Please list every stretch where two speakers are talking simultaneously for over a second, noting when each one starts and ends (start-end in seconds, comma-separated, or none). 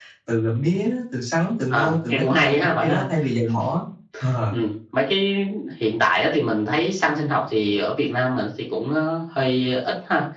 1.7-3.0